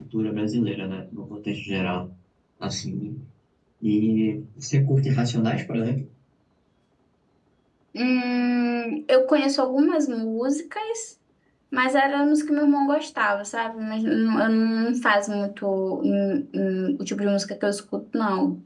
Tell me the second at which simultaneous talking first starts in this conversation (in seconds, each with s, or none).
none